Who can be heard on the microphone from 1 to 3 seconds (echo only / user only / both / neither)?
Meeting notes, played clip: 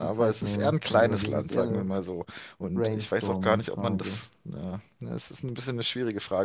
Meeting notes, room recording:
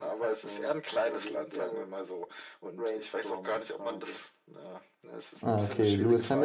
echo only